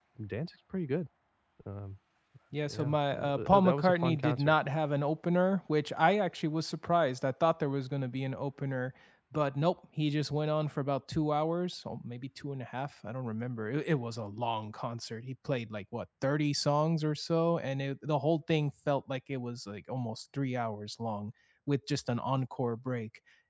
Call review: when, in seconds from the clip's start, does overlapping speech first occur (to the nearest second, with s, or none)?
3 s